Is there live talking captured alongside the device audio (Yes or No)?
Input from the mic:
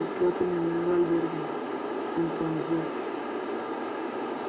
No